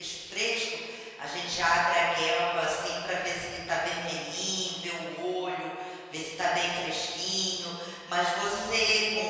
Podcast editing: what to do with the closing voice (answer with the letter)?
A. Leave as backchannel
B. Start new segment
A